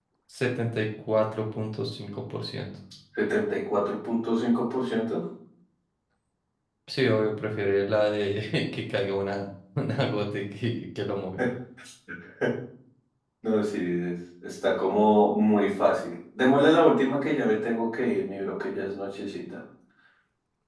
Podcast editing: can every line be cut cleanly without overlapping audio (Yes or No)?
Yes